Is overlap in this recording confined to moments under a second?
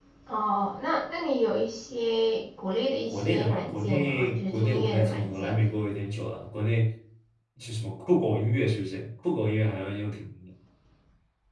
No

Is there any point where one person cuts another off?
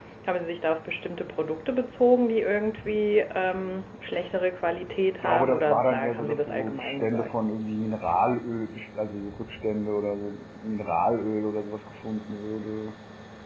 Yes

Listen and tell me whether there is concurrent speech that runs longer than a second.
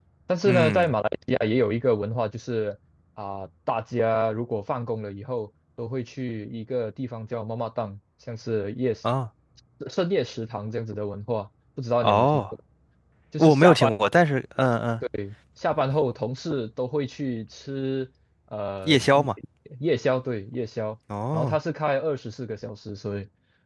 No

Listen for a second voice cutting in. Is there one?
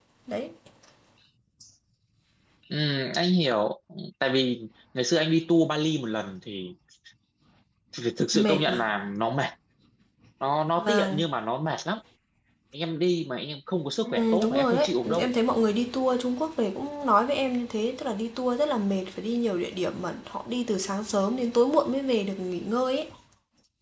Yes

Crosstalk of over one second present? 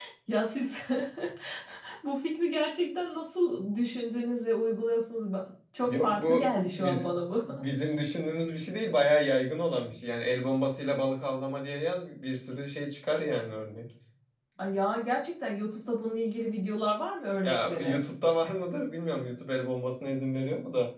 Yes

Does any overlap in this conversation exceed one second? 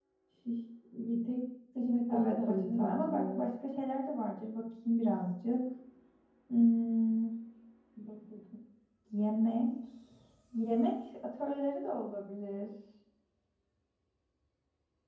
Yes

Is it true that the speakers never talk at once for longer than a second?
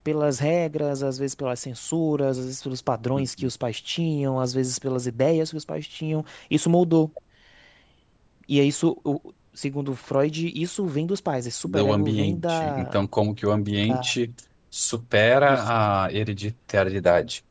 No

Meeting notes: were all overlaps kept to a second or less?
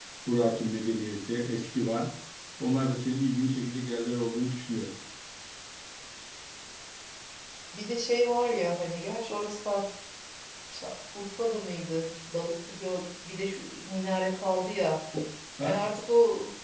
Yes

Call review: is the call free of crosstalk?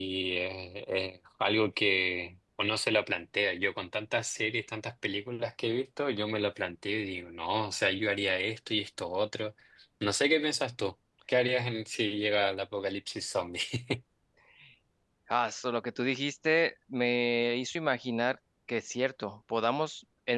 Yes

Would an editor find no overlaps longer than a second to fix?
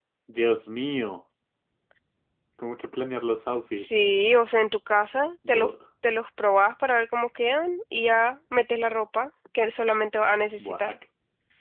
Yes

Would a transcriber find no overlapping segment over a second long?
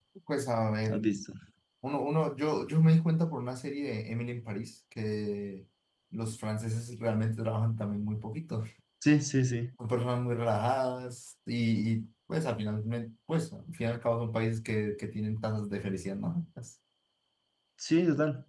Yes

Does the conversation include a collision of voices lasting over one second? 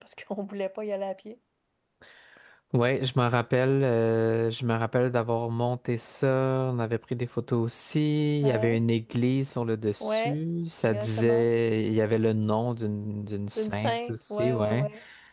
Yes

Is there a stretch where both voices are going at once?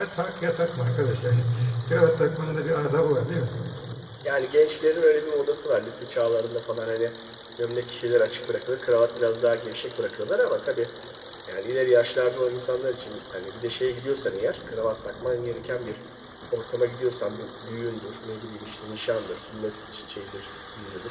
No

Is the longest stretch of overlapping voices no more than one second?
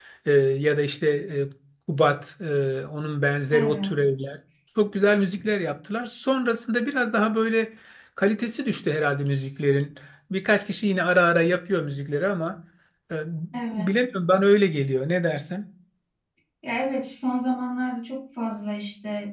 Yes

